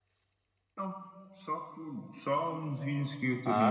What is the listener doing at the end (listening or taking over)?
taking over